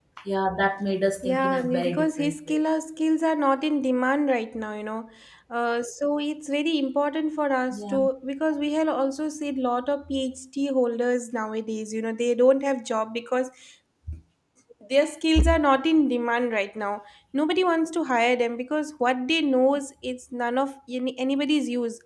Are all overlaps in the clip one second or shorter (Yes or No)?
No